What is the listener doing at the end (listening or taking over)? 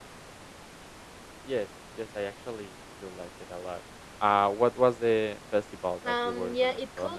taking over